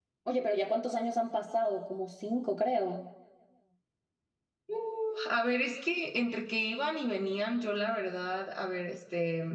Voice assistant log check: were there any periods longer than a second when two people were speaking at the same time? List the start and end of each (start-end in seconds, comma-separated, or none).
none